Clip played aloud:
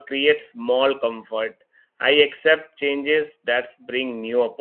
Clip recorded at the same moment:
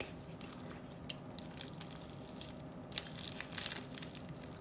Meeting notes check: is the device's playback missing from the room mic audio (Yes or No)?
Yes